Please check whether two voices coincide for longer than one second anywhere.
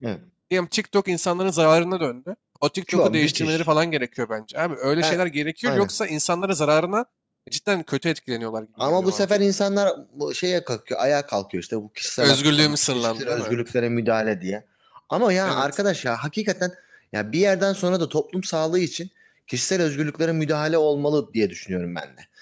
Yes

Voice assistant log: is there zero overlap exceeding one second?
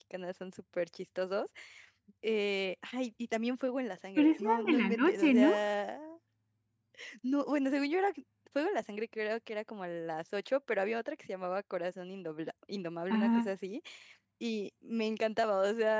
No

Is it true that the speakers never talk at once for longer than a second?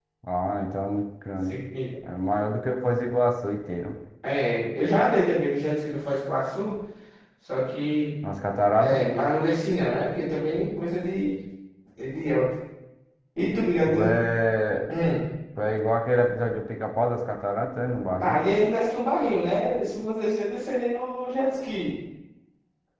Yes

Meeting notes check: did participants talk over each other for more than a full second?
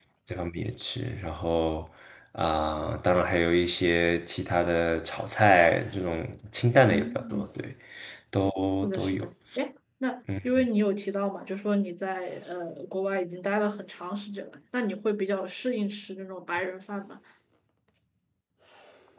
No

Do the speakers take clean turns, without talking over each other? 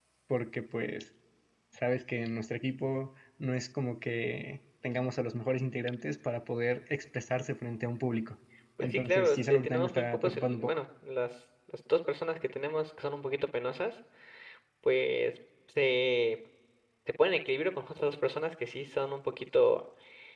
No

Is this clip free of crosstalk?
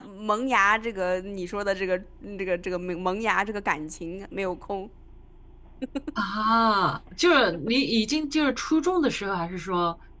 Yes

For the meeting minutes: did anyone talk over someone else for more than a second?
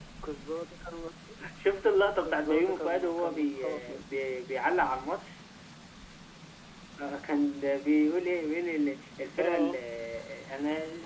Yes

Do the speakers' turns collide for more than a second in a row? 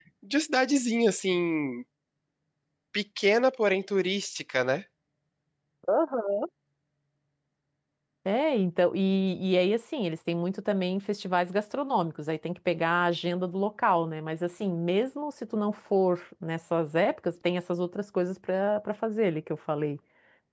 No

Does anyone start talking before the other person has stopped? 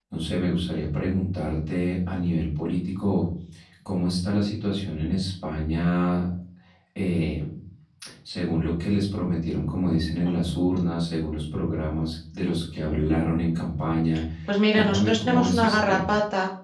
Yes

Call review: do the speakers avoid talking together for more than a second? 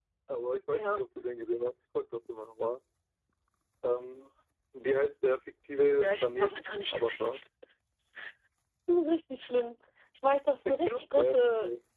No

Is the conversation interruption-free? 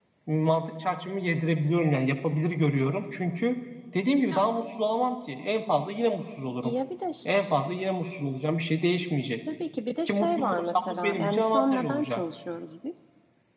No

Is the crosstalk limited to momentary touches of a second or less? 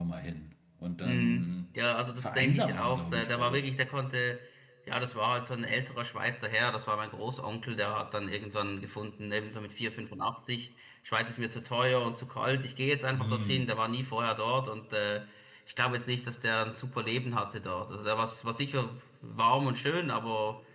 No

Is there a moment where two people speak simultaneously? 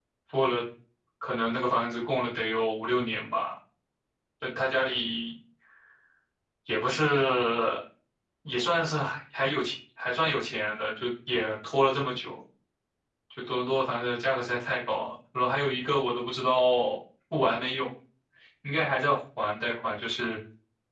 No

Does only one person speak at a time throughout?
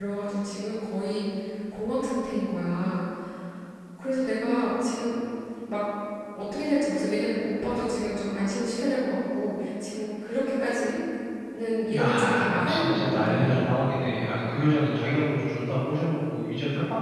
No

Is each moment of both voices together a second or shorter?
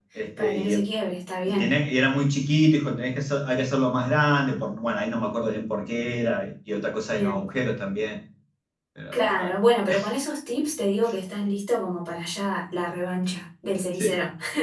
Yes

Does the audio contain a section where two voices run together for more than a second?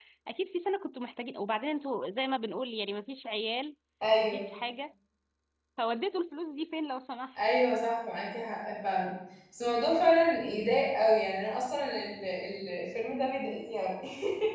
No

